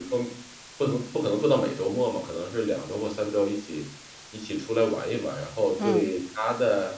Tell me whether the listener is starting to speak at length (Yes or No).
No